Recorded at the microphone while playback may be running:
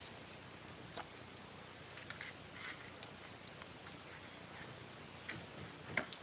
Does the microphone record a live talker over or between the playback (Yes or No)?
No